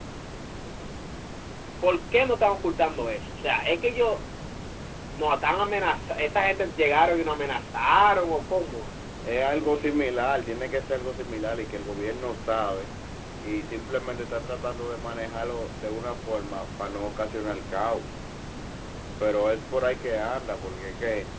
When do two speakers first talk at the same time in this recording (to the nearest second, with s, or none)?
none